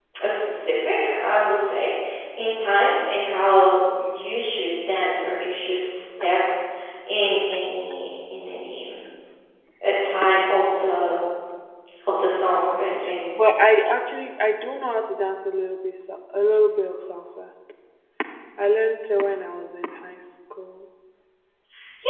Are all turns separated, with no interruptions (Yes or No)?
Yes